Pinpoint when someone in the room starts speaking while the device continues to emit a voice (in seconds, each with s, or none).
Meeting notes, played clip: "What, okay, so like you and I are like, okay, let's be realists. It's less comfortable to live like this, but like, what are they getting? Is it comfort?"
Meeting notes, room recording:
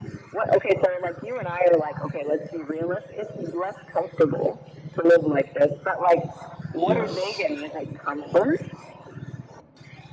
6.7 s